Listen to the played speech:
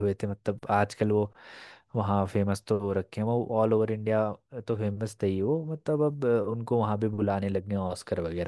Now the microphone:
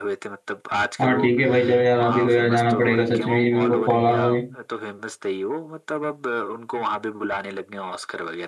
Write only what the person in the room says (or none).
हाँ ठीक है भाई चलो यार अभी तो यार जाना पड़ेगा सच में ही मेरे को कॉल आ रहा है